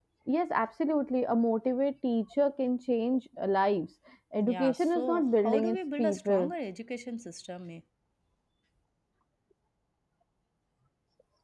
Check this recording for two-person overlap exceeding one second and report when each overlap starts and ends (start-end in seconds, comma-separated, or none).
4.4-6.5